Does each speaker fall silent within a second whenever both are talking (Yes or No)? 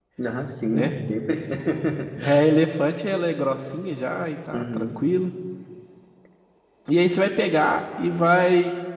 Yes